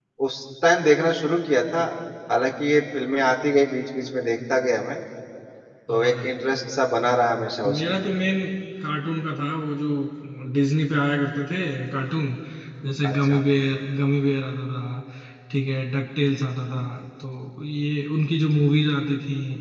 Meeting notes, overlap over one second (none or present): none